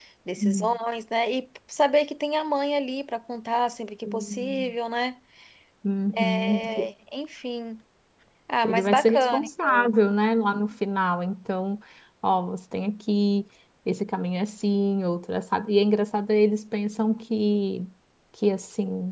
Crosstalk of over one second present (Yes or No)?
Yes